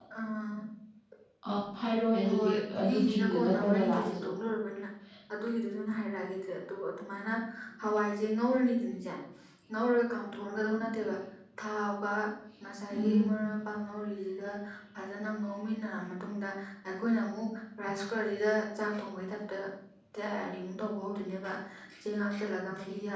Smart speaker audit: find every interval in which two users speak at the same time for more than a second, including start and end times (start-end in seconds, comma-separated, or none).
2.3-4.3